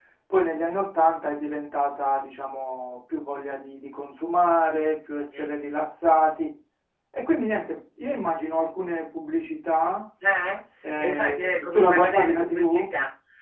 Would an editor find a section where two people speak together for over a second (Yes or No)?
Yes